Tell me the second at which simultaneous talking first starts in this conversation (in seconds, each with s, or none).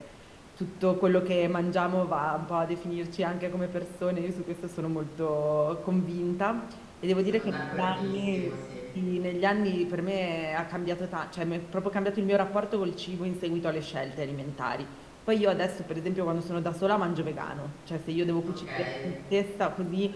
7.2 s